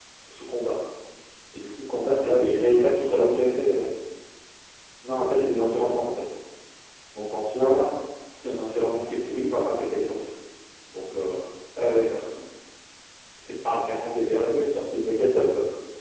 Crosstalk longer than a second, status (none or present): none